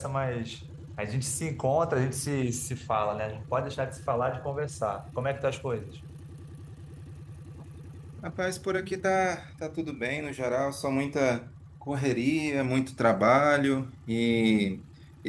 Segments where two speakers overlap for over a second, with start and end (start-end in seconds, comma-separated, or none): none